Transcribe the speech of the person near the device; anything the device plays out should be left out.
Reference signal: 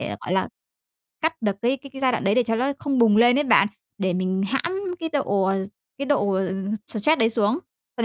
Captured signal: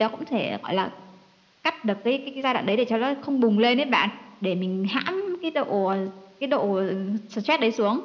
none

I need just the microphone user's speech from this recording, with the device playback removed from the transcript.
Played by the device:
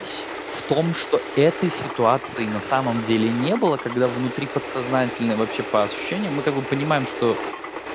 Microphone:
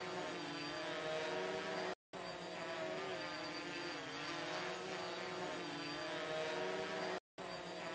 none

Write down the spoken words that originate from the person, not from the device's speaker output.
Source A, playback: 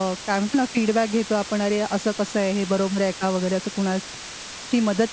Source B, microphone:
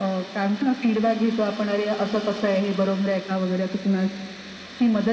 none

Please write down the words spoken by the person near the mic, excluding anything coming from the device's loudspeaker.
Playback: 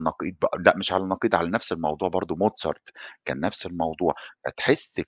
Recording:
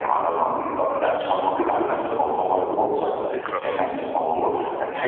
ذكرى آه.

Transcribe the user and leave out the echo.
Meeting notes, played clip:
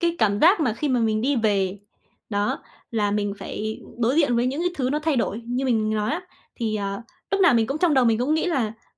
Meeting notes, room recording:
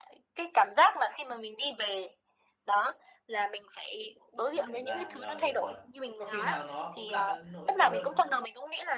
Không nhận ra, rồi, hiểu rồi. Thế có khi nào nó cũng là cái nỗi cô đơn nữa không?

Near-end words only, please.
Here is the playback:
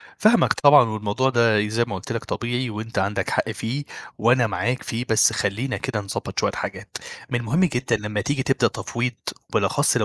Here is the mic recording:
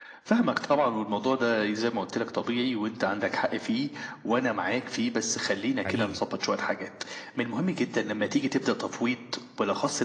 حقيقي

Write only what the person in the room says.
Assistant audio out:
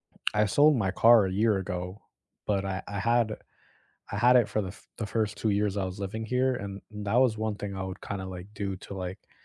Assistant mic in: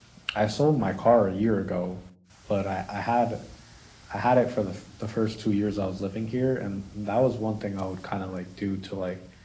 none

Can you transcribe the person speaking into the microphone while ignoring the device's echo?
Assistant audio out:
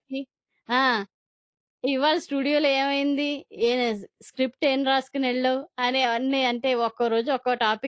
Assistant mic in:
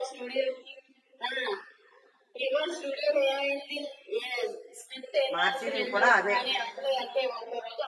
మార్చినవి కూడా అవే.

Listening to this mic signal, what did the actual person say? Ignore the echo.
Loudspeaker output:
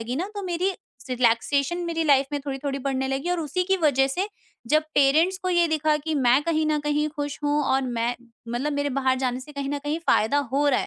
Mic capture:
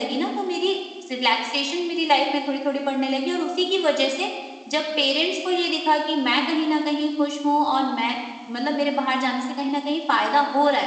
none

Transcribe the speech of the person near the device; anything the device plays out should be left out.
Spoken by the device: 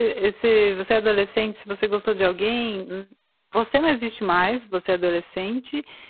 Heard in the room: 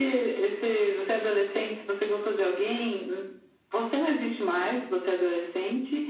none

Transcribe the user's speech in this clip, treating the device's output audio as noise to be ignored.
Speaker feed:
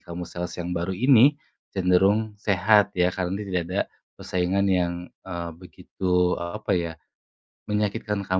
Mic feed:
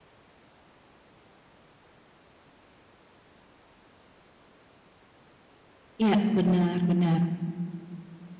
Iya, bener bener.

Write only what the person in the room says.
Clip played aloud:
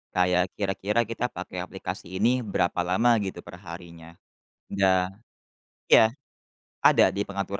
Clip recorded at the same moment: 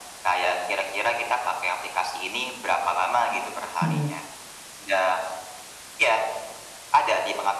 mhm,

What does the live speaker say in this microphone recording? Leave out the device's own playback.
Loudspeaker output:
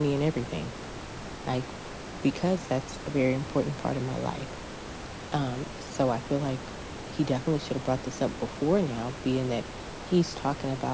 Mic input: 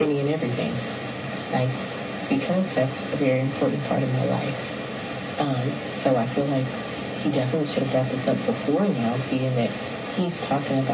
none

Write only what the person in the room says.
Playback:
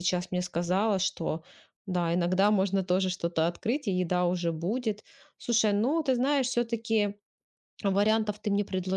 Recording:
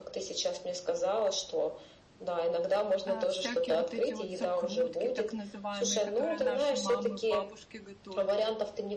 э, всякие вот эти вот закрутки, так называемые, которые наши мамы, бабушки готовили?

